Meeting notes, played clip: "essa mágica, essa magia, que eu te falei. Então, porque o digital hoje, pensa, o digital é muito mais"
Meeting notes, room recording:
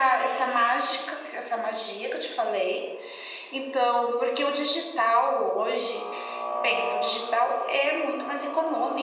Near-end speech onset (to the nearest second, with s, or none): none